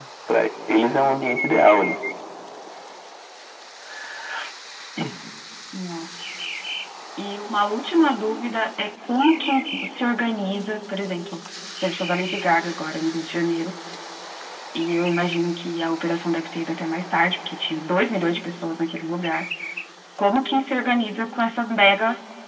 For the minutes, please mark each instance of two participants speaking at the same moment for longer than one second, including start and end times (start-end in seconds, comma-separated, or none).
none